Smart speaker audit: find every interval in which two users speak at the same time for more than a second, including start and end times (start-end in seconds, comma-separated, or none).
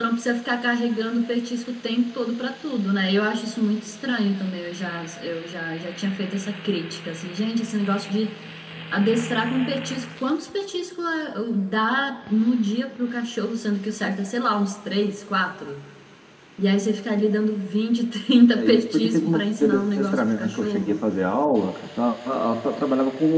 18.5-21.0